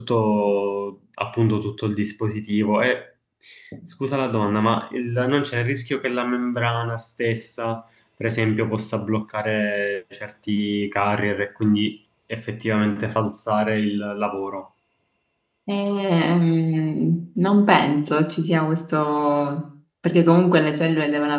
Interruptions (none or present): none